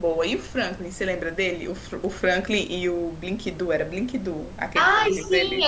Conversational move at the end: taking over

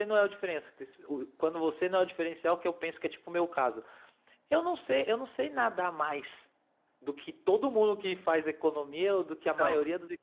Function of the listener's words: listening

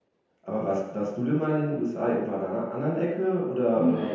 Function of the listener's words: taking over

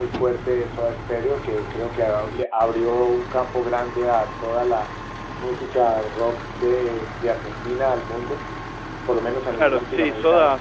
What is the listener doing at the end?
taking over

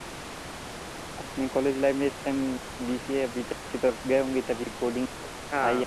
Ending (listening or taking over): taking over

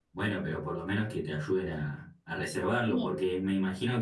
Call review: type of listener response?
listening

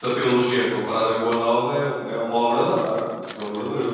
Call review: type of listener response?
taking over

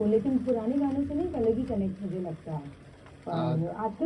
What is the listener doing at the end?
listening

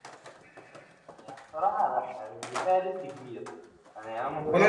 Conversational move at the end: taking over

